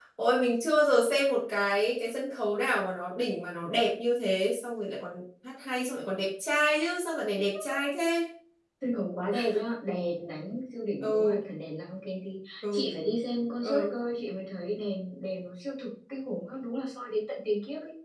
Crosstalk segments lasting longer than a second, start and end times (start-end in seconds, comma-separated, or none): none